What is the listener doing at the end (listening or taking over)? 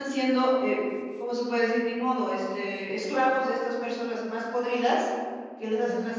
listening